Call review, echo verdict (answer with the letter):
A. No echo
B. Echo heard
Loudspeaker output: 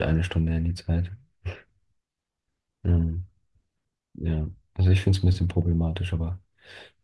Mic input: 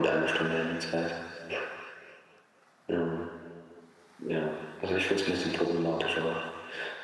B